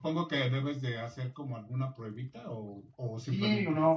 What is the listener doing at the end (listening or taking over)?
taking over